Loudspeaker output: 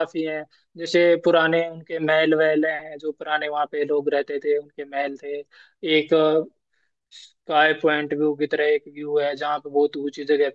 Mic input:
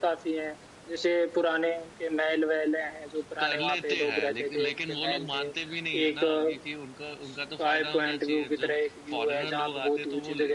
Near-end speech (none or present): present